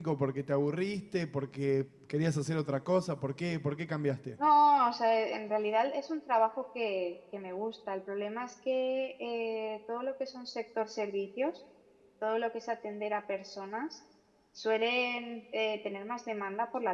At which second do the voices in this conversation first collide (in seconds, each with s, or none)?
none